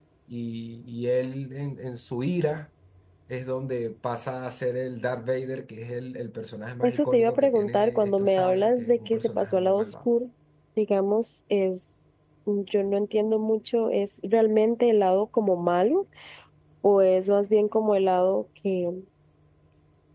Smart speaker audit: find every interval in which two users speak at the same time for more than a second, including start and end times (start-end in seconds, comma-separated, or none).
6.8-9.9